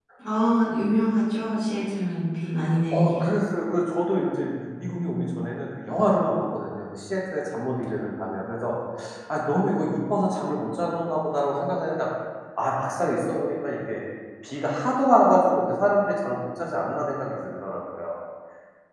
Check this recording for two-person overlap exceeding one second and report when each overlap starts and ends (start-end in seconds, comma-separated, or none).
none